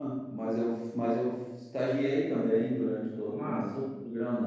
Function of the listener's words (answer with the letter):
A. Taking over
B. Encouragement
B